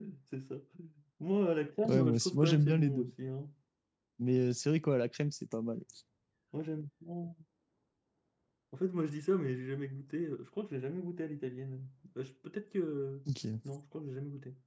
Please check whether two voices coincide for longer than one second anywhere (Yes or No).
Yes